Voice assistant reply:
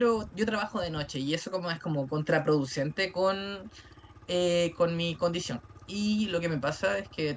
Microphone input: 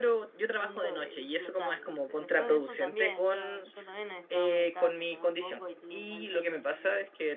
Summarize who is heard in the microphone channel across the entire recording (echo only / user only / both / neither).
both